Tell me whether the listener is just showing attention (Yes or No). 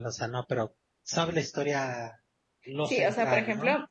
No